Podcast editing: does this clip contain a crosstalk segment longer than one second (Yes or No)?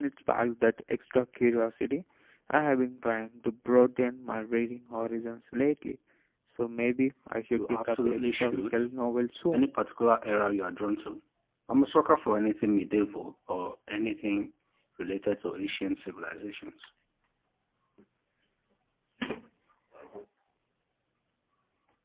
Yes